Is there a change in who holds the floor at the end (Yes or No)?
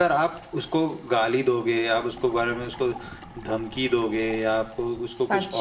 No